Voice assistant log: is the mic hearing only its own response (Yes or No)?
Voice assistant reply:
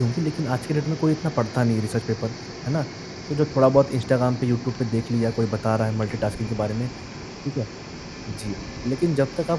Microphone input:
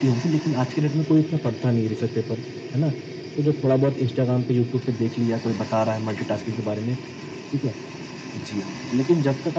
Yes